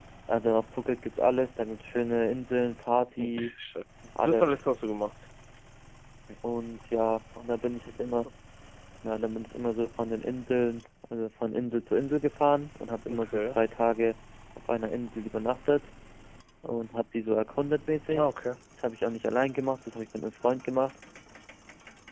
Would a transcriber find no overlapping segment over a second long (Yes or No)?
Yes